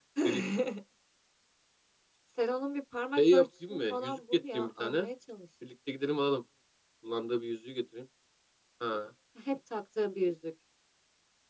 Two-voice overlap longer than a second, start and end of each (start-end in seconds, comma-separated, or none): 3.2-5.1